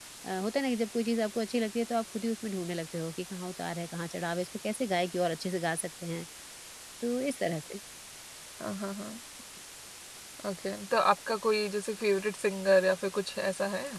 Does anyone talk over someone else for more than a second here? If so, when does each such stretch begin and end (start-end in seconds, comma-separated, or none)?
none